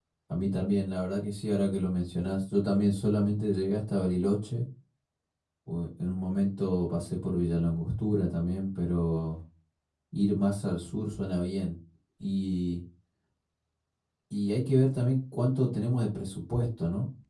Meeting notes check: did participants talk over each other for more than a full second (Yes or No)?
No